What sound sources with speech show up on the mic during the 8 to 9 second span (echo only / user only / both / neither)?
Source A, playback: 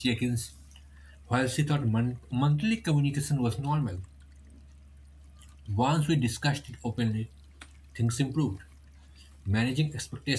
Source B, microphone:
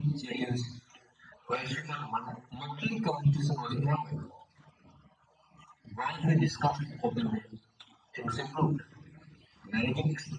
echo only